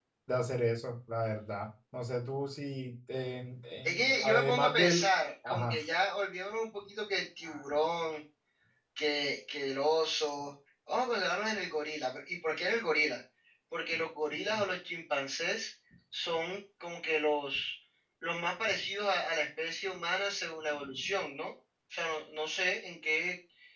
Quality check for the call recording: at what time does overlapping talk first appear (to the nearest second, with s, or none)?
4 s